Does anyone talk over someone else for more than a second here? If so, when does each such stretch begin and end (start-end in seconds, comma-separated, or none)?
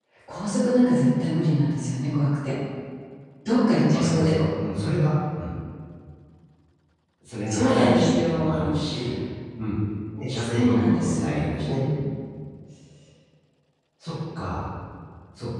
7.5-8.7, 10.5-11.8